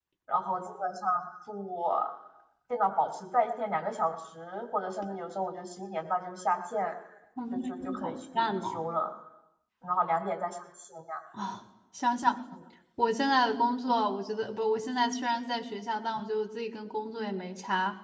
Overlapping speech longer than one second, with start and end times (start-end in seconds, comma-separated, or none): 7.5-8.8